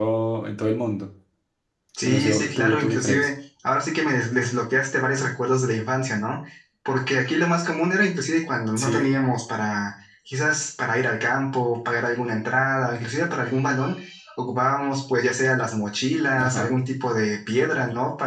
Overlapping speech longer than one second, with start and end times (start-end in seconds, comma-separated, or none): 2.0-3.3